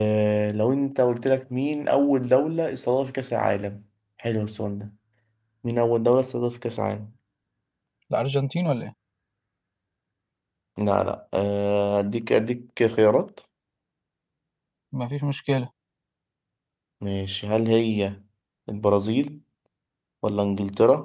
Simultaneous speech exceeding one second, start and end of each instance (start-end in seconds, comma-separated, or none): none